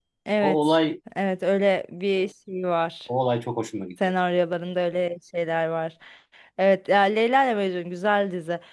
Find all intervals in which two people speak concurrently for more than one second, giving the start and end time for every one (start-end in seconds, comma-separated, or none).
none